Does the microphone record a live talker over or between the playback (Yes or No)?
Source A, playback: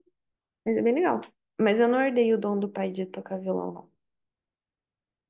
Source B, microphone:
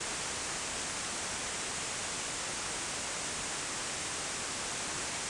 No